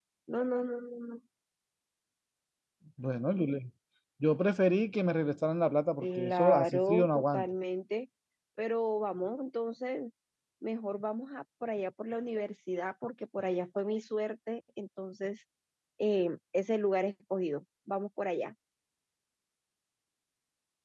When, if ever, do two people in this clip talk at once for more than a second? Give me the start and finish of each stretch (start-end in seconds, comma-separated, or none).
6.0-7.4